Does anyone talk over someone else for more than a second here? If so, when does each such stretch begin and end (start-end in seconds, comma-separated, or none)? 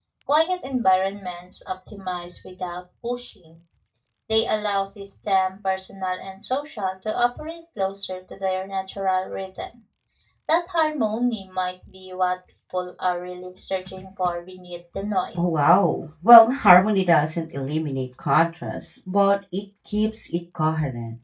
none